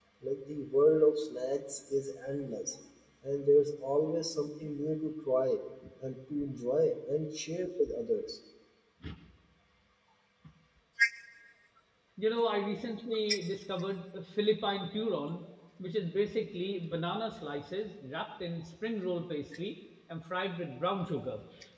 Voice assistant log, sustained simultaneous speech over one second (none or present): none